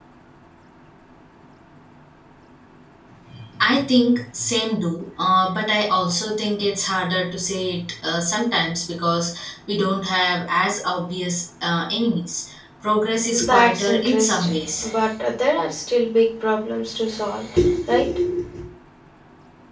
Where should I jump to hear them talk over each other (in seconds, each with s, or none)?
13.3 s